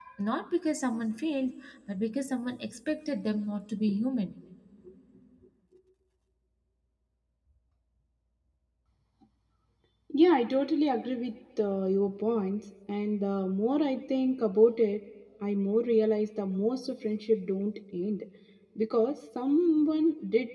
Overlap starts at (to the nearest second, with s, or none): none